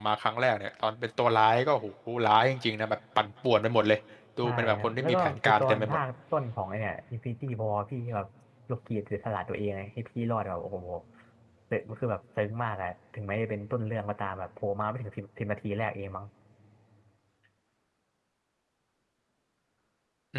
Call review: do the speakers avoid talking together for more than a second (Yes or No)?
No